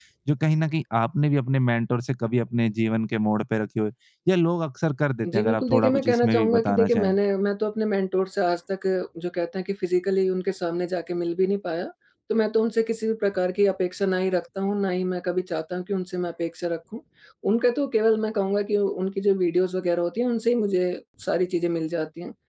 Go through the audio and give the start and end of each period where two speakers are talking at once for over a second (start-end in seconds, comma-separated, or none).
5.3-7.1